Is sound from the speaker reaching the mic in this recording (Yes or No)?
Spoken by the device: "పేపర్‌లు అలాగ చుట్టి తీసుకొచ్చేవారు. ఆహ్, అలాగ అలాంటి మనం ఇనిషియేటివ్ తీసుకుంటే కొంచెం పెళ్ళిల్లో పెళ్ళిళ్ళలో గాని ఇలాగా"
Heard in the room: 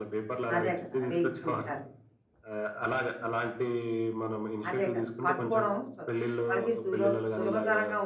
Yes